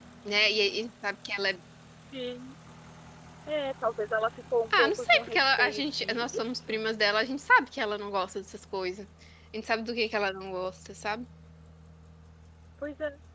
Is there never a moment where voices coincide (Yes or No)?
No